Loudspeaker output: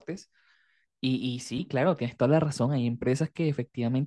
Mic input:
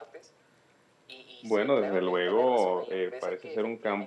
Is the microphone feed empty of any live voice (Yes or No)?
No